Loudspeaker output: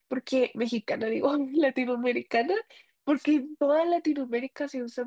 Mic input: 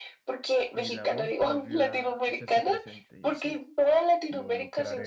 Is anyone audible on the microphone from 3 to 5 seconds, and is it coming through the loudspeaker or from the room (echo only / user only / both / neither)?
both